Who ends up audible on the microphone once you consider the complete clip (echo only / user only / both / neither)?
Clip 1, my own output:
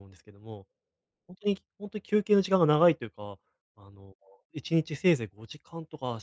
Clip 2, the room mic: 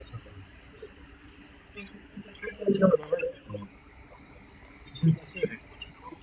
echo only